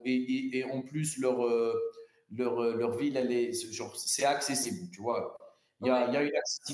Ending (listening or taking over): listening